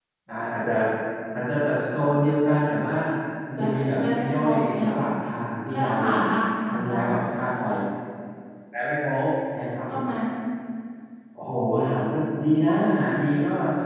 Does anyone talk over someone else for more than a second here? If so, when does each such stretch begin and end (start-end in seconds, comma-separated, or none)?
3.6-5.1